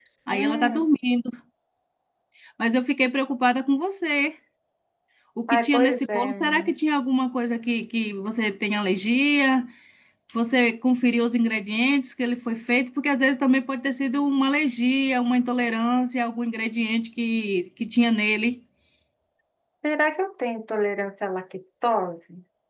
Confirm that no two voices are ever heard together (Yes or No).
No